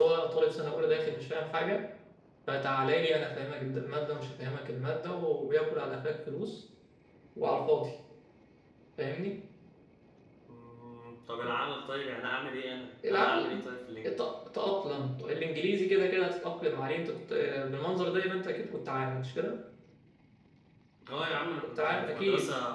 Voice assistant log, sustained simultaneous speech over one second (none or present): present